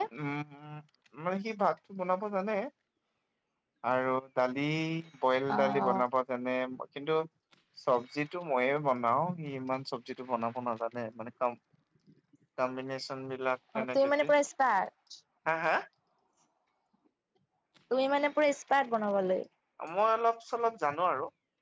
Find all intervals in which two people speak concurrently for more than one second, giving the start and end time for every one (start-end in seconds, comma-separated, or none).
none